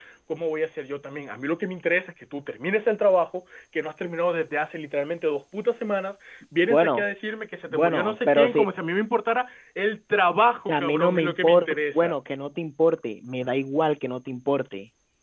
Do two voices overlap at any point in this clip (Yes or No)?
Yes